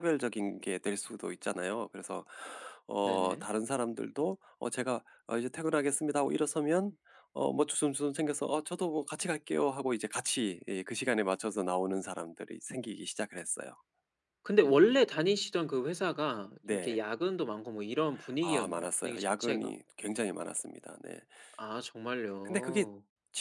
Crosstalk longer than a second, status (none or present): present